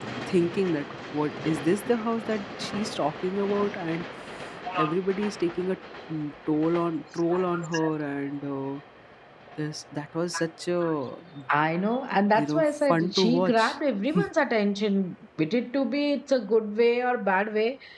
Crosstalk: present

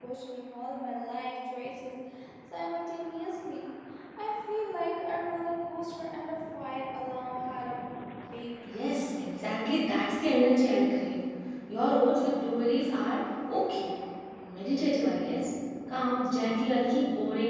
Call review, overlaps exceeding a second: none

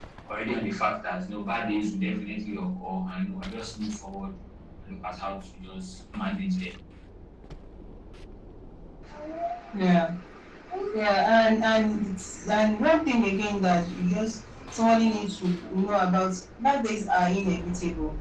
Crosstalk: none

